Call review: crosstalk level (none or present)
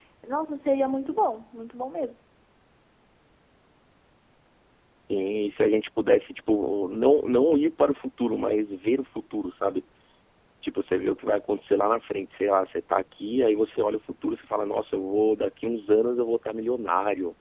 none